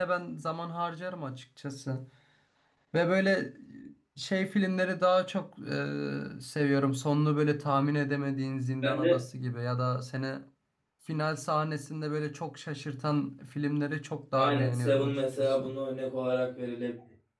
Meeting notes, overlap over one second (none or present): present